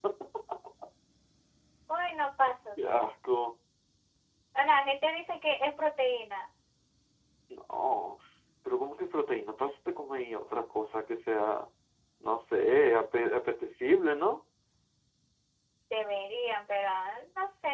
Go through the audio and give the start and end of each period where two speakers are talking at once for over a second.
none

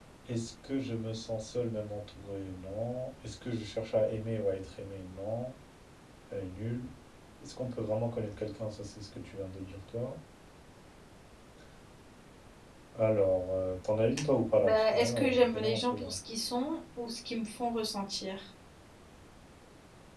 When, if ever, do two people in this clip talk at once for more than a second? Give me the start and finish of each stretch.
14.6-16.1

